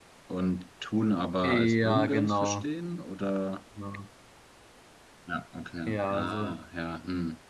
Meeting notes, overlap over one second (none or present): present